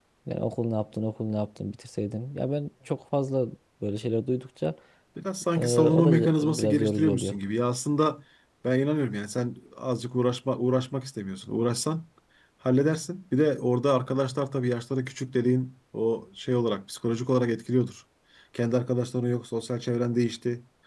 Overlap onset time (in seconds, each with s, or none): 5.6 s